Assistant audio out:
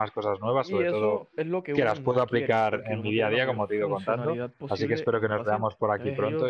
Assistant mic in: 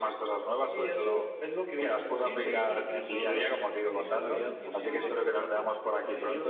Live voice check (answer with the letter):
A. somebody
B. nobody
A